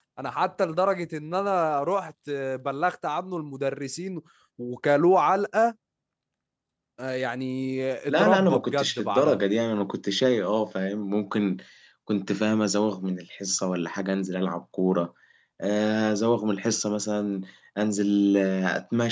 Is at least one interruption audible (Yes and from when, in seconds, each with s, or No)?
Yes, from 8.1 s